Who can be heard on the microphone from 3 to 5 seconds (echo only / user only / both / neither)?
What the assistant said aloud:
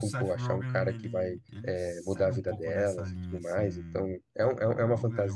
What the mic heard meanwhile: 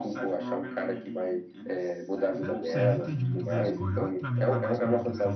both